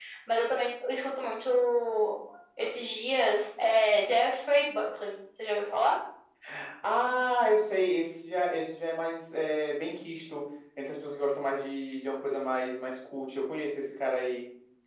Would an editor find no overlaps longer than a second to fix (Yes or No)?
Yes